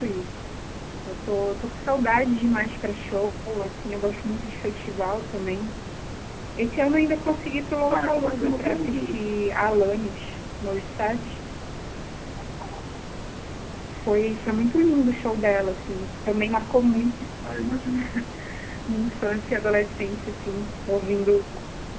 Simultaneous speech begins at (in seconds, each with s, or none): 7.9 s